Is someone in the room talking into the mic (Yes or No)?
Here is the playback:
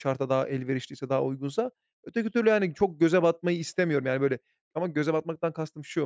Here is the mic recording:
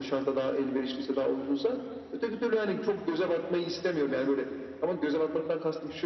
No